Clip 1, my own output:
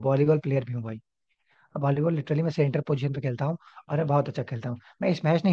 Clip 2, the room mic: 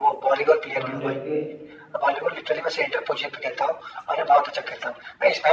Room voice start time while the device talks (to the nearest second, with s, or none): 1 s